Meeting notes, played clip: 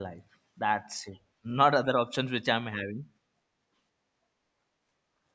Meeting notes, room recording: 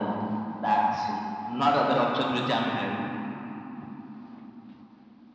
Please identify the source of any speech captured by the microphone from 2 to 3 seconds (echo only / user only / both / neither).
echo only